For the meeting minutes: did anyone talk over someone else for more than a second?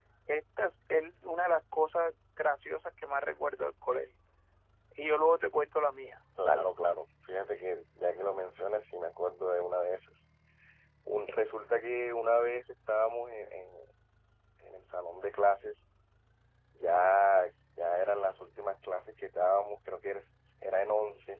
No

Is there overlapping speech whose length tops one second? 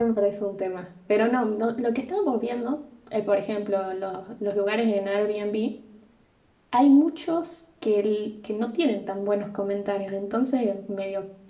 No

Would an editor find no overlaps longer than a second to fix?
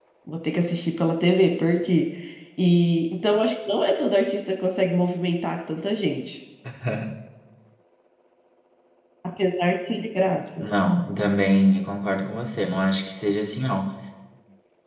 Yes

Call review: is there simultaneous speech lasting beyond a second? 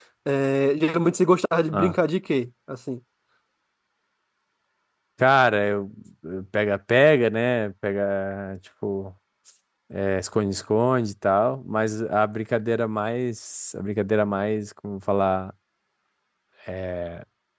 No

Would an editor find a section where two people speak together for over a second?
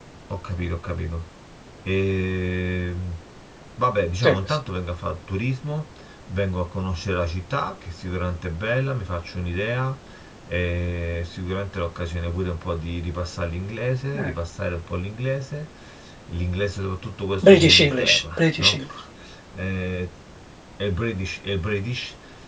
Yes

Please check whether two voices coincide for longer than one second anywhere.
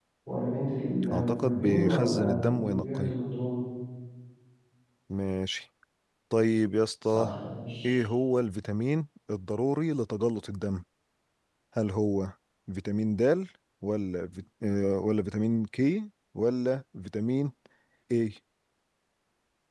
Yes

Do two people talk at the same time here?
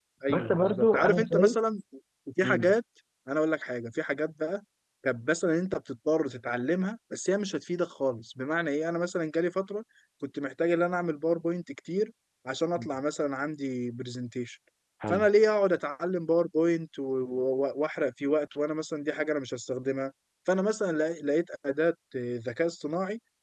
Yes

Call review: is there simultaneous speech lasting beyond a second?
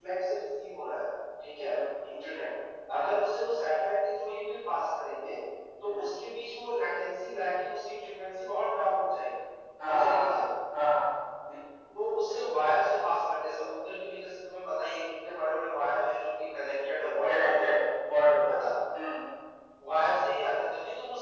No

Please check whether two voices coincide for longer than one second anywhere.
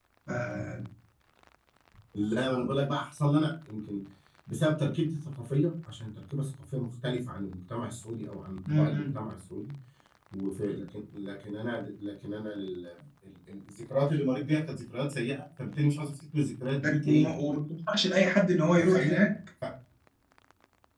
No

